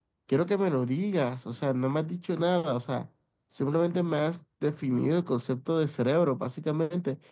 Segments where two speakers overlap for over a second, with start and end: none

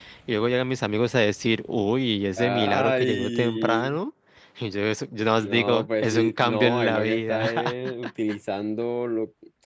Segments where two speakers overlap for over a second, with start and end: 2.4-4.0, 5.4-7.5

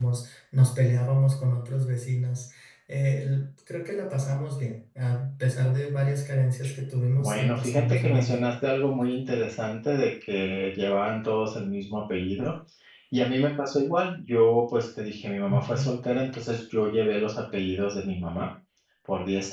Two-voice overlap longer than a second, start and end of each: 7.2-8.4

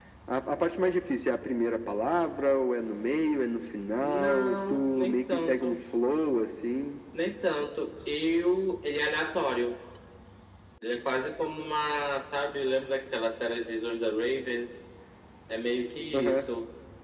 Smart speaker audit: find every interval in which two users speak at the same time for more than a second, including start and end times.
4.0-5.8

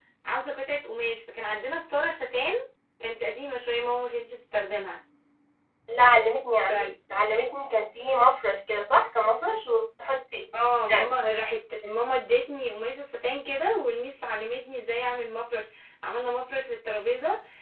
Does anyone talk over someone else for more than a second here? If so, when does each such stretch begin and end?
none

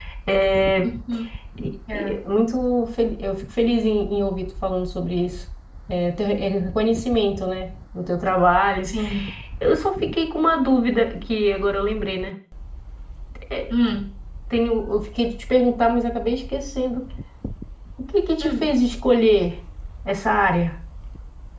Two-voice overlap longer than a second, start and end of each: none

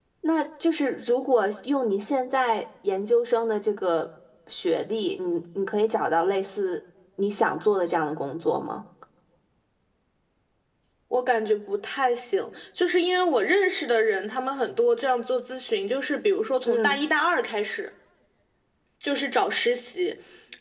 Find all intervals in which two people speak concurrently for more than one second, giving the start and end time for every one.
none

